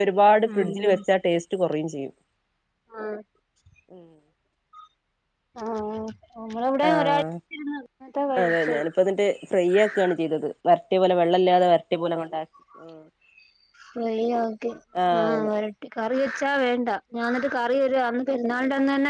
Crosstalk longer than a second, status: none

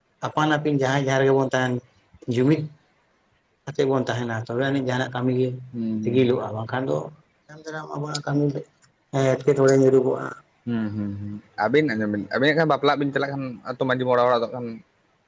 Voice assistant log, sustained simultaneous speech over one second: none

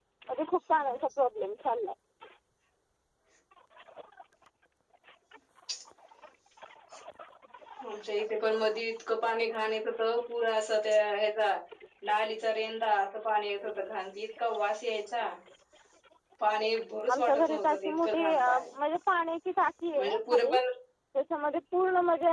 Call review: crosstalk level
present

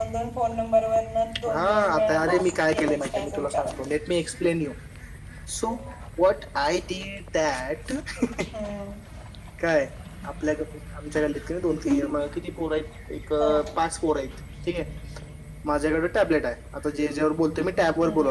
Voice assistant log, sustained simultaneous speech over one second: present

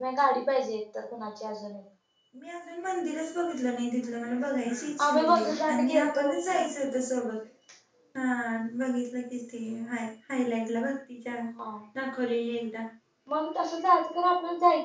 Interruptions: present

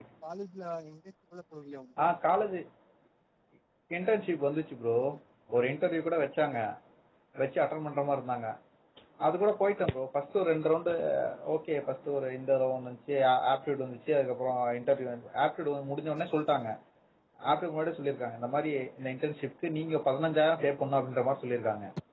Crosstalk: none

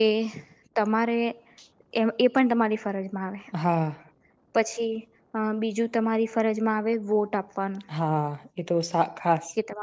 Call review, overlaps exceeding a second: none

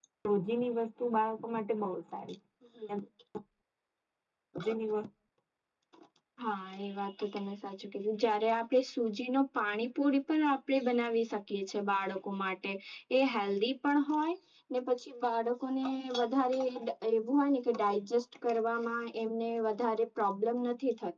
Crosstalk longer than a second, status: none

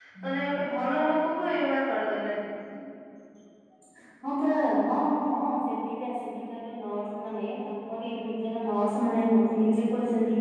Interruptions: none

